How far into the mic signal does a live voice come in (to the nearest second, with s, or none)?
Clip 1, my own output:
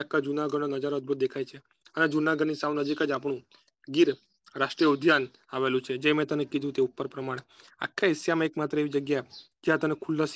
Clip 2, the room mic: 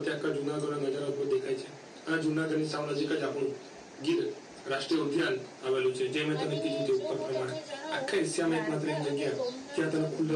6 s